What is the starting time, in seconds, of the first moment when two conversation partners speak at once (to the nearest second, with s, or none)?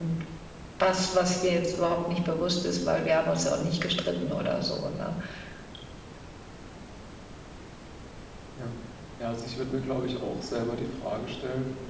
none